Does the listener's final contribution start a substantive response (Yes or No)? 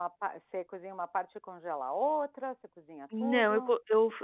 Yes